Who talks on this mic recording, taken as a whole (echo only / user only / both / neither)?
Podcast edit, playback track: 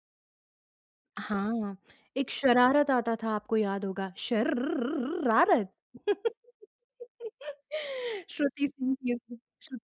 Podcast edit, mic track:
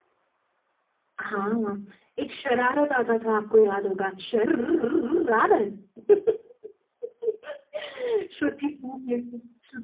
echo only